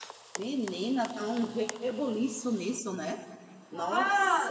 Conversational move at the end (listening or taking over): taking over